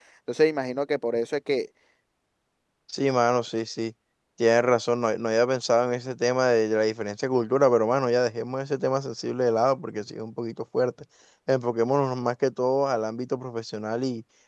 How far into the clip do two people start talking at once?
none

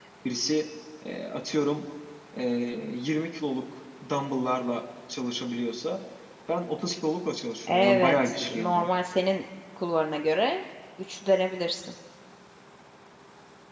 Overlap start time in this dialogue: 7.7 s

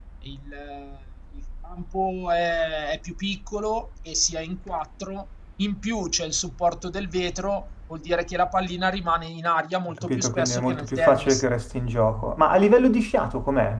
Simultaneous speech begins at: 9.9 s

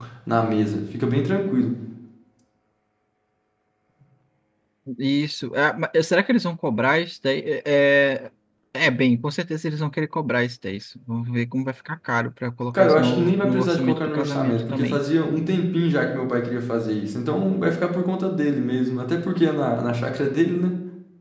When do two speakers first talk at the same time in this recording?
12.7 s

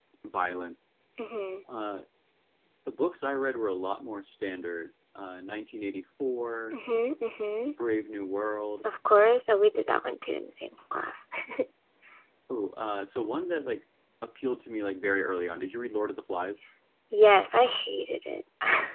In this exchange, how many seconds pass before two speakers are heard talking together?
none

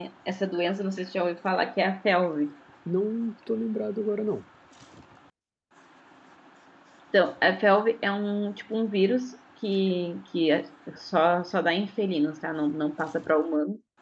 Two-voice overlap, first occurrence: none

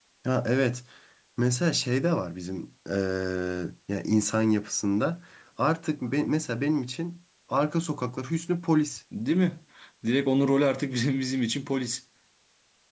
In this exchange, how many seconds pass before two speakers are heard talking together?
none

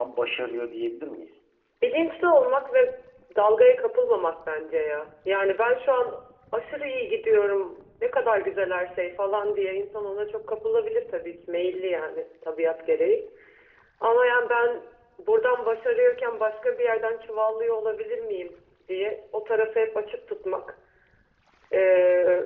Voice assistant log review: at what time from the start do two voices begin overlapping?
none

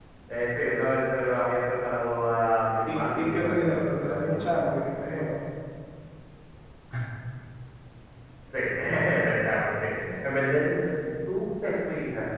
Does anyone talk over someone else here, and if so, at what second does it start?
2.9 s

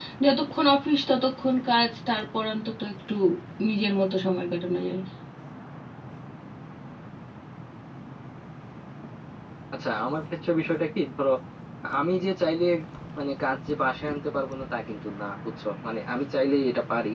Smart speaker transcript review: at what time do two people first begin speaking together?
none

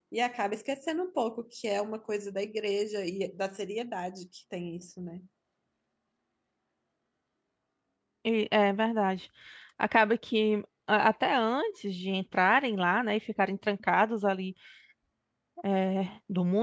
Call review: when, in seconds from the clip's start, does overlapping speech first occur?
none

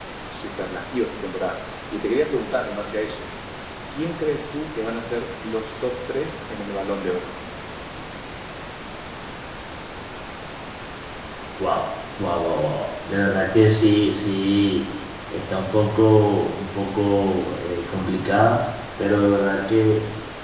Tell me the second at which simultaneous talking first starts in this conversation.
none

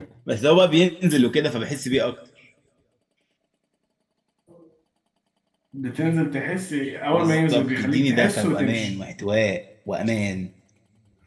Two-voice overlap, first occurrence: 7.1 s

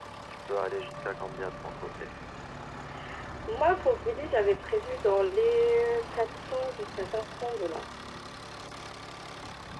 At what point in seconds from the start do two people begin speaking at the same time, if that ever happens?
none

